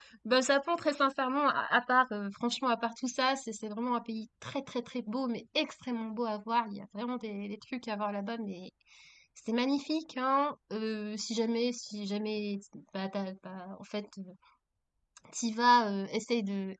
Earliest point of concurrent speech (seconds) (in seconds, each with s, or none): none